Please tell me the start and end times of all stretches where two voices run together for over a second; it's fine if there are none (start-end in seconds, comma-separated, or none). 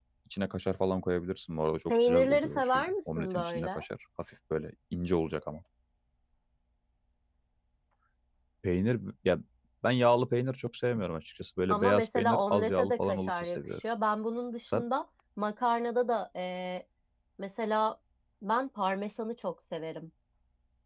1.9-3.8, 11.7-13.6